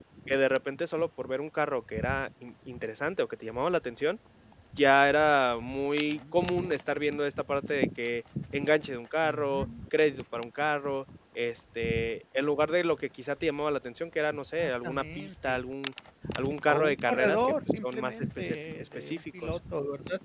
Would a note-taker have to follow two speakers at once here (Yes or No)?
Yes